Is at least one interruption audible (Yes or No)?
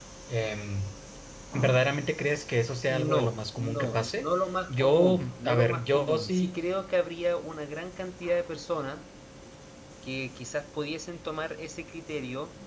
Yes